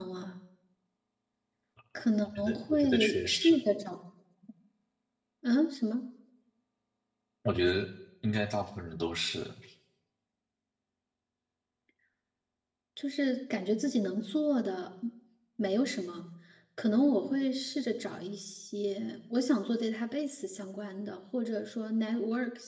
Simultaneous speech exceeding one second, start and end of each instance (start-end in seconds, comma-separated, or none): 2.2-3.5